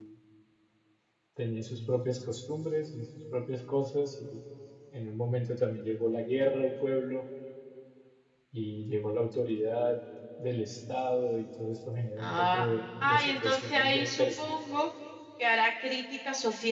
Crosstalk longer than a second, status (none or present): present